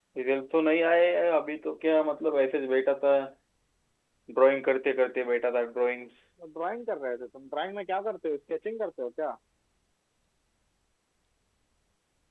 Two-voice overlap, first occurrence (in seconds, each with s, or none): none